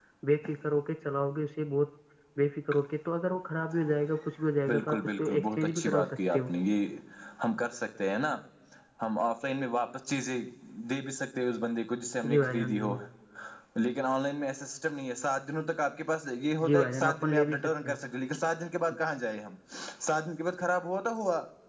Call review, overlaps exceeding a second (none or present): present